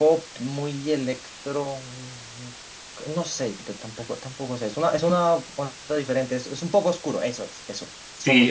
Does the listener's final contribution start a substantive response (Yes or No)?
Yes